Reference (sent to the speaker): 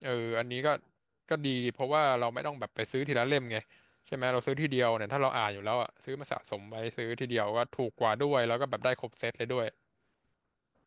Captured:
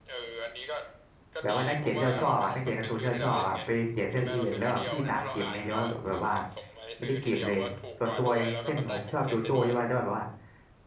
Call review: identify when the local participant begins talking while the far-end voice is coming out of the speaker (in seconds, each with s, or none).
1.4 s